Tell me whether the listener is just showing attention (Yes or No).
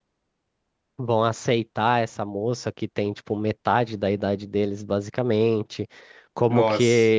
Yes